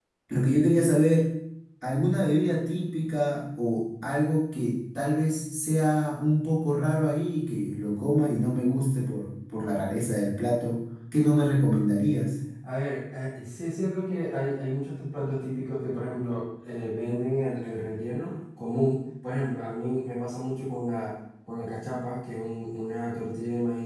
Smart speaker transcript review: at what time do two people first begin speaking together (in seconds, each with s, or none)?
none